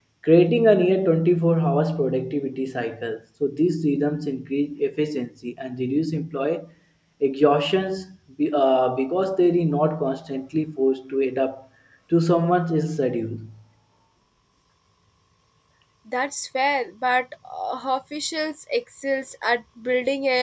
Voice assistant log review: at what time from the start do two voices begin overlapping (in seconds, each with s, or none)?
none